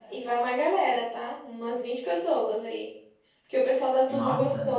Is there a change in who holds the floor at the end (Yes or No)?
No